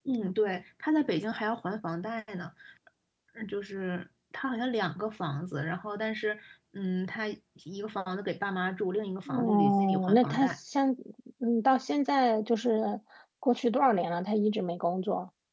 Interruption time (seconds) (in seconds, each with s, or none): 9.3 s